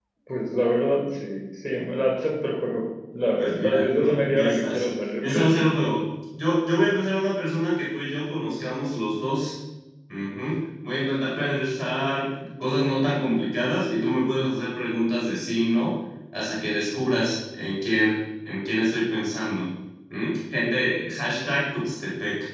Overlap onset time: 3.4 s

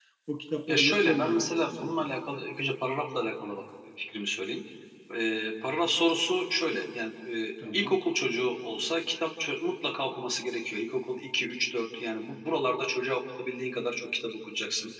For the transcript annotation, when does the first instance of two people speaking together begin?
0.7 s

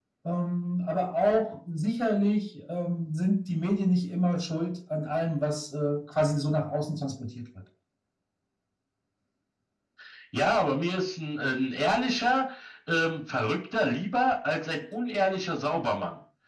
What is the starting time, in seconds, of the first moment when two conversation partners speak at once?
none

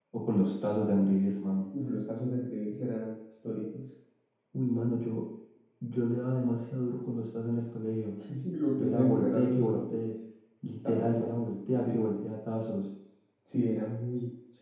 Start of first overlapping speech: 8.8 s

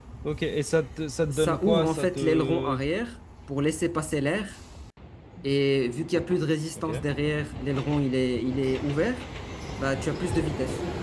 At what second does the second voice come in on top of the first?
1.3 s

